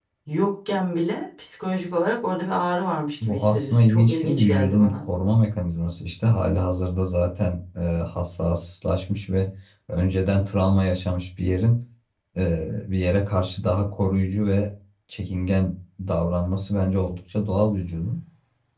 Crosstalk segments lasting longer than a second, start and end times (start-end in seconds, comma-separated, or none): 3.2-5.0